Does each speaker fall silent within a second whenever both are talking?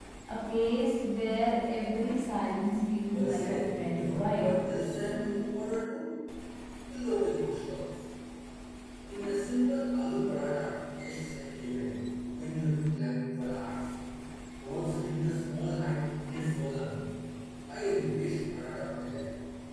No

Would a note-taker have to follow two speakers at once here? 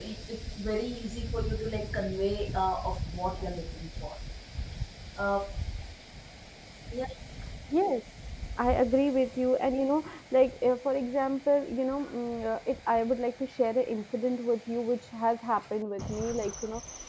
No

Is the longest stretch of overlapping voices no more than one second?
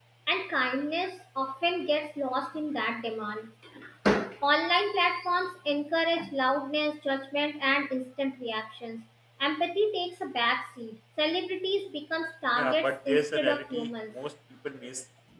No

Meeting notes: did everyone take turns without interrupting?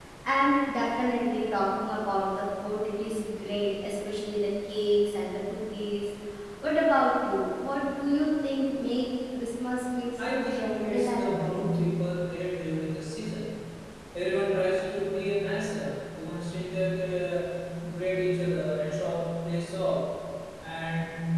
No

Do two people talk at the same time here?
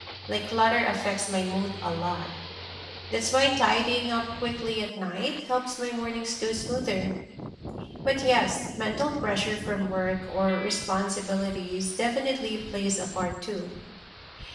No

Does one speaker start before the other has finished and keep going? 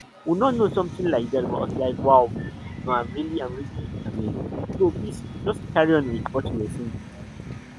No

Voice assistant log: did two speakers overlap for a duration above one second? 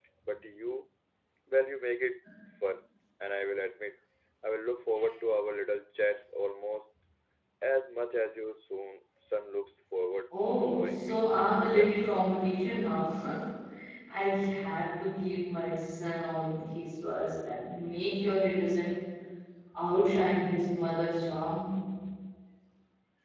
Yes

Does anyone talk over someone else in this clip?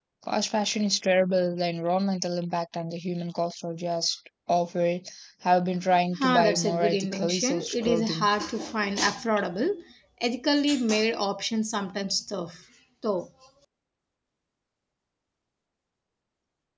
Yes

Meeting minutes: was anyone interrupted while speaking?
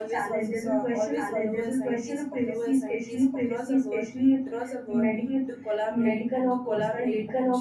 Yes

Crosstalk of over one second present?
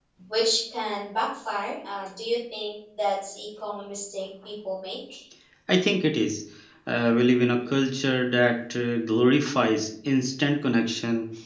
No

